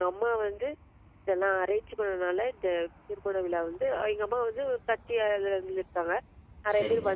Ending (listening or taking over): listening